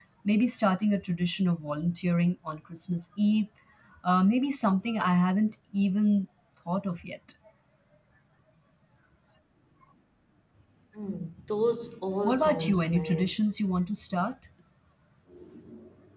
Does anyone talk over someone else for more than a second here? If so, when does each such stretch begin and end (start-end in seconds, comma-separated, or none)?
12.2-13.8